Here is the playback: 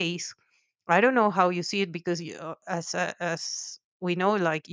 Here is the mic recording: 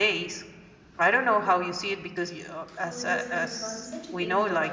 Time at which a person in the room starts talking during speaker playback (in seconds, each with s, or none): 2.8 s